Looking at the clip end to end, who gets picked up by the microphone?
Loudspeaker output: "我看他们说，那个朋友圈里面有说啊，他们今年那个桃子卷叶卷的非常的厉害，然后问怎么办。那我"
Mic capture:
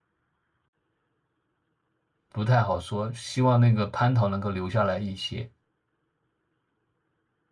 user only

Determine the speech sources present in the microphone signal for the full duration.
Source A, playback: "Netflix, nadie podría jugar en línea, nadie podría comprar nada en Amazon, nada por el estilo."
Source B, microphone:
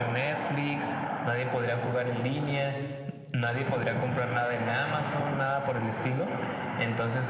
echo only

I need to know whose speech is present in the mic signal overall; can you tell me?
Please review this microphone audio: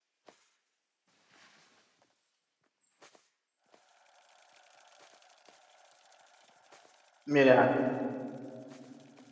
user only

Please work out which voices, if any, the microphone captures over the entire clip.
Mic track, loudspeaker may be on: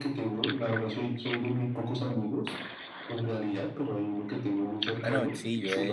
both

